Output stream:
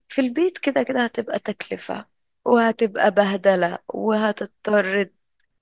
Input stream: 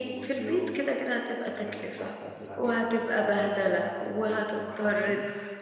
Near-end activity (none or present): present